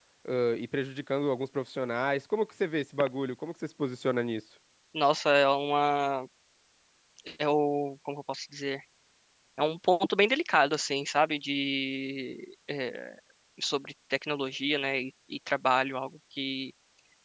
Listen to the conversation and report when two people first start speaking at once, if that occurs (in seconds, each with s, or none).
none